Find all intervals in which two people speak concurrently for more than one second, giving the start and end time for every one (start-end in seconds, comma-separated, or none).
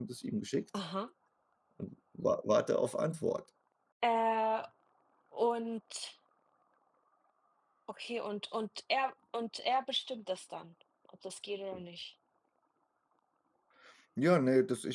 none